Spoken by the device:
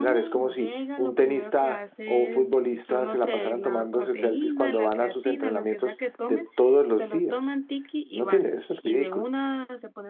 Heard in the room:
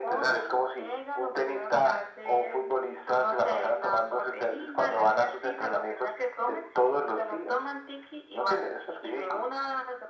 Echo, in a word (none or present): present